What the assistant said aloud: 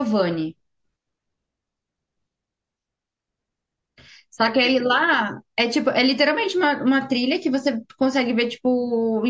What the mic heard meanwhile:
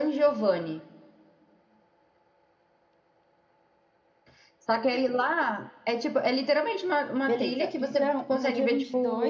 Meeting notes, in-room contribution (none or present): present